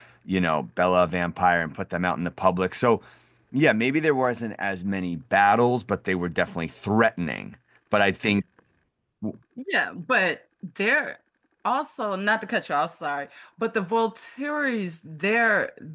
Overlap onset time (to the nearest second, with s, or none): none